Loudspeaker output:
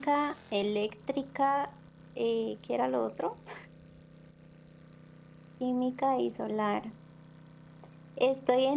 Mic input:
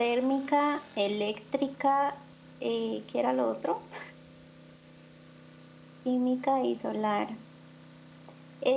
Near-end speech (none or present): none